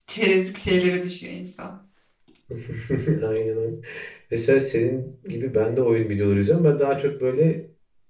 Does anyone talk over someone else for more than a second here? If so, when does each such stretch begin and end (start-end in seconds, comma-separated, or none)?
none